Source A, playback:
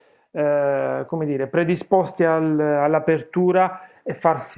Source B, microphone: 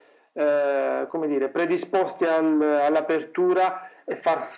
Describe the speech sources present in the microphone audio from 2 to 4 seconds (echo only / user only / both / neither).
echo only